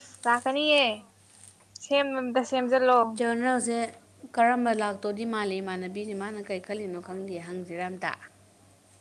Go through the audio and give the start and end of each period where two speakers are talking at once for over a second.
none

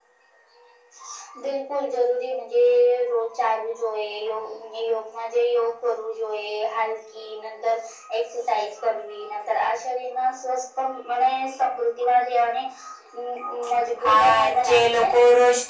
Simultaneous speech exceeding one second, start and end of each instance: 14.0-15.2

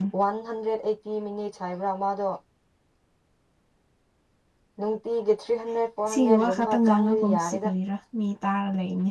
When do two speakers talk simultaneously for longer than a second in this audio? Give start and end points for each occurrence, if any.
6.1-7.7

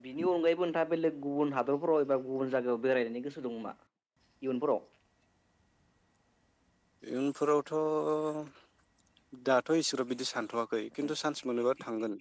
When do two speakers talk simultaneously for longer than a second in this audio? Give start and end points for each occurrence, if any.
none

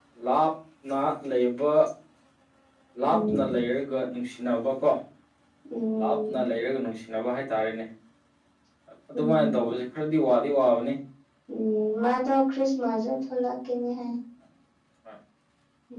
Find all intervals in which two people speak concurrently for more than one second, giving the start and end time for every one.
none

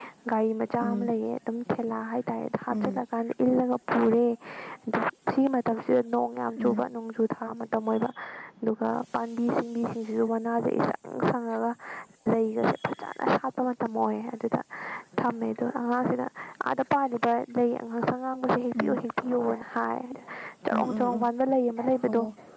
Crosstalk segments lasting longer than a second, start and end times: none

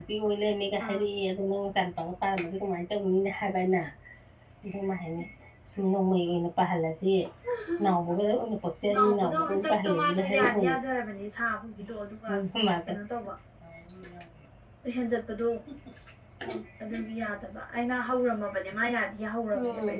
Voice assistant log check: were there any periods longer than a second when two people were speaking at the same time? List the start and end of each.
8.9-10.8

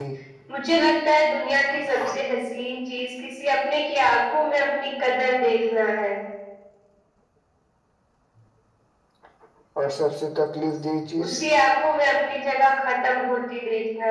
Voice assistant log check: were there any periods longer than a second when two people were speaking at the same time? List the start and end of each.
none

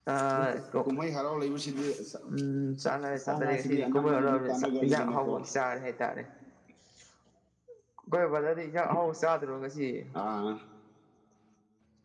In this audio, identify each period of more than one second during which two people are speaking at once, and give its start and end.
2.8-5.3

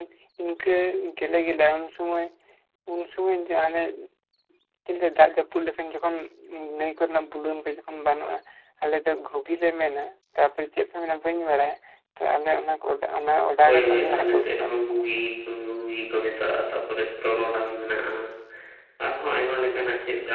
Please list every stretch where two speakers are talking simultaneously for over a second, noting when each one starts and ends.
13.7-15.0

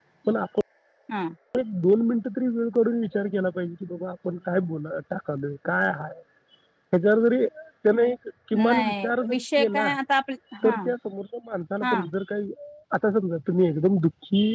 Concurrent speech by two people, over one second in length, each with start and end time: 8.7-9.9

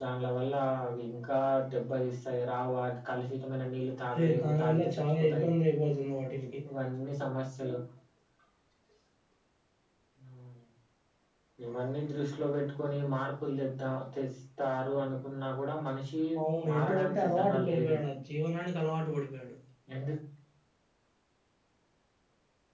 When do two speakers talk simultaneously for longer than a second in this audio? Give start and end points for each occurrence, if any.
4.1-5.5, 16.7-18.0

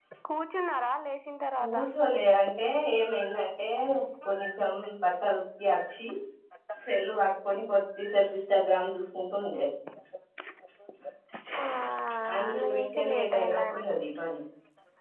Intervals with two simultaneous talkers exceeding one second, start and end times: 12.5-13.8

